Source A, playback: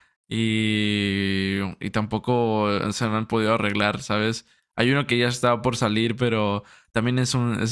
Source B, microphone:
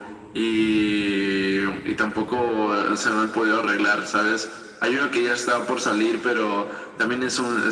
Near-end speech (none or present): none